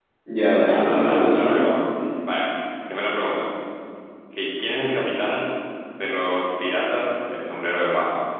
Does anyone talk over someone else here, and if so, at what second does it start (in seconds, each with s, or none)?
0.6 s